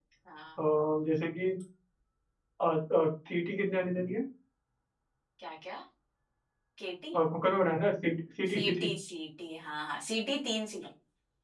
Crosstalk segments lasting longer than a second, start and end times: none

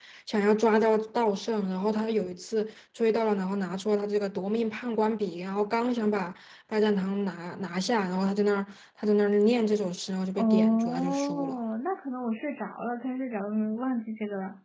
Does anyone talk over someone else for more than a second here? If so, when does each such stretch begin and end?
10.4-11.6

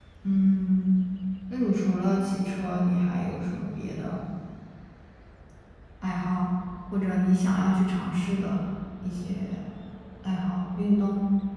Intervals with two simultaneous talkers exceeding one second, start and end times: none

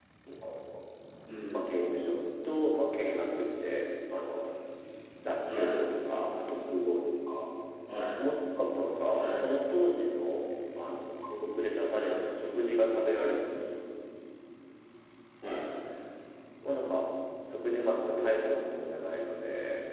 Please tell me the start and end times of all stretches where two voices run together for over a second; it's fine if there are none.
none

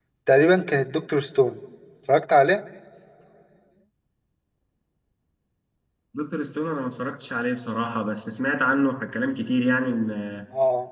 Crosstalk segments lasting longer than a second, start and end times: none

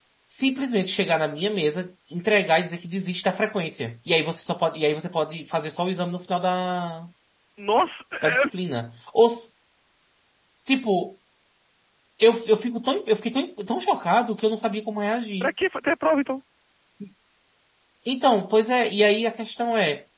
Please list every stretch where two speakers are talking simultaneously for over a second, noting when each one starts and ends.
none

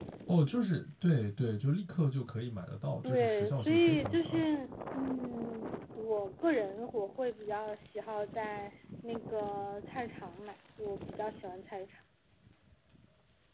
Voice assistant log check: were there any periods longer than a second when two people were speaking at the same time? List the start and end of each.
3.0-4.4

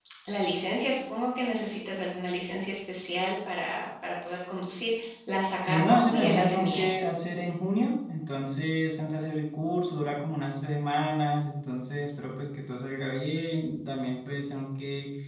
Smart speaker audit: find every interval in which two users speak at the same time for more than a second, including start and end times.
5.7-7.1

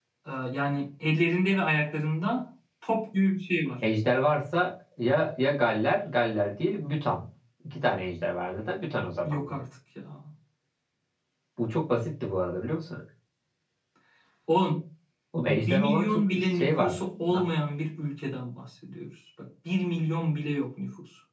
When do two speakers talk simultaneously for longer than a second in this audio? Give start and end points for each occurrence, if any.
15.4-17.4

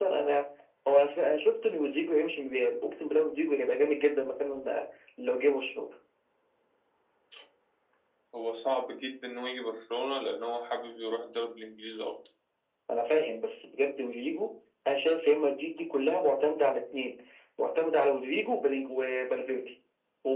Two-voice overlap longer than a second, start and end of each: none

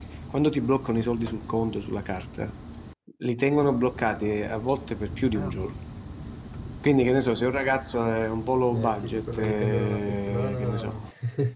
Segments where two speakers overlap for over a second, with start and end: 8.7-10.9

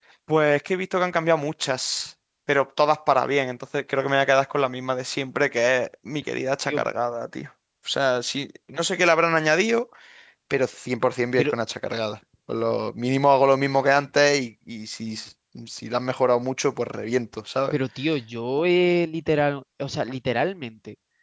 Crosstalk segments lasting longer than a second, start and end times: none

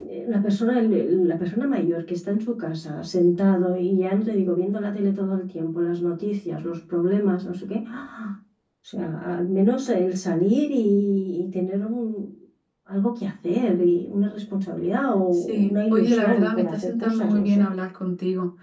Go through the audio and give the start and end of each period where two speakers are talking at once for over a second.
15.3-17.7

